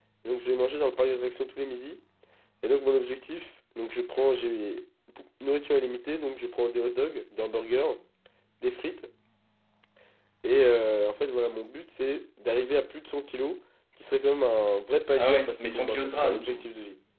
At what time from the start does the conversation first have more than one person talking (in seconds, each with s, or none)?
15.2 s